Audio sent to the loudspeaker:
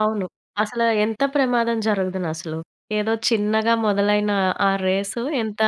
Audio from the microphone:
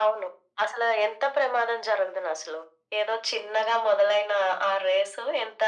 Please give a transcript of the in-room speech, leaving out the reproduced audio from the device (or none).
none